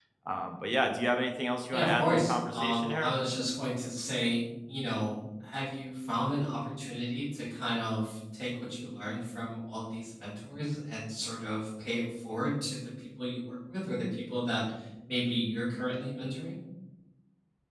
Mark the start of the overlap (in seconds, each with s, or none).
1.7 s